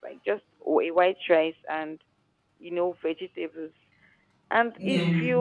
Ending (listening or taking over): listening